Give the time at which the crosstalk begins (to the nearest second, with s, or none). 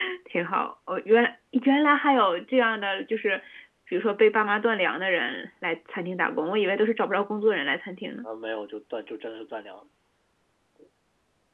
none